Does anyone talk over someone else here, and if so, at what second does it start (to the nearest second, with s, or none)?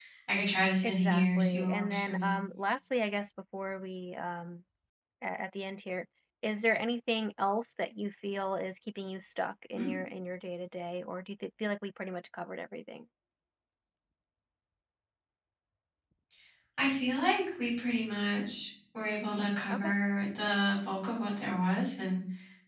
1 s